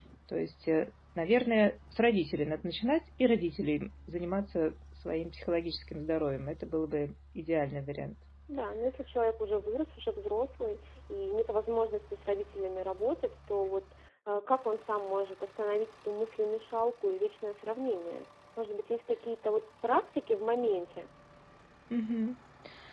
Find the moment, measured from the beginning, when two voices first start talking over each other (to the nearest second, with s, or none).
none